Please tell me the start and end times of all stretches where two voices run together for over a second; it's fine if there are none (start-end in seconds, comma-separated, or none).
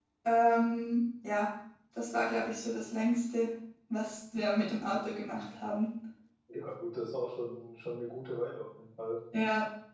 none